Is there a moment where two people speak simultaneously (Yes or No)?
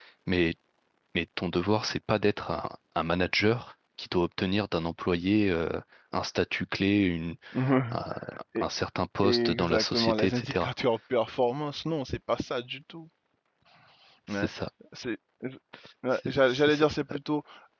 Yes